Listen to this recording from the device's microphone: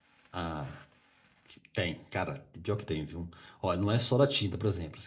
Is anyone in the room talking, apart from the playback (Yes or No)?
Yes